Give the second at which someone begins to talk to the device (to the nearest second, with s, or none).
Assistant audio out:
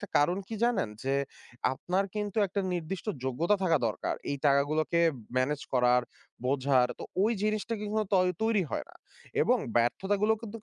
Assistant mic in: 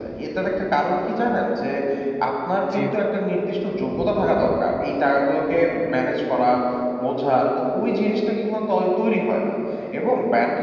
3 s